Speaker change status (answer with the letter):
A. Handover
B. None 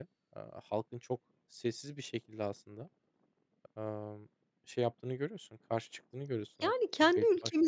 A